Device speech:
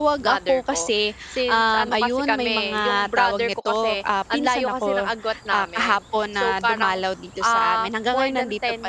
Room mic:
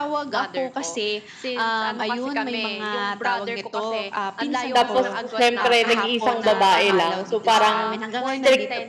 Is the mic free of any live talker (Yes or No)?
No